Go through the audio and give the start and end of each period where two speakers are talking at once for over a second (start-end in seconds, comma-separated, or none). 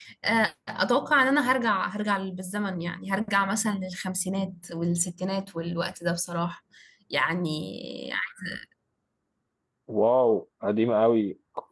none